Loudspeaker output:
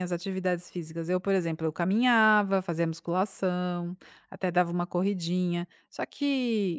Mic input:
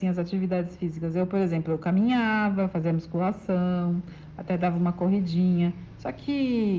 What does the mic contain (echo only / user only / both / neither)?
echo only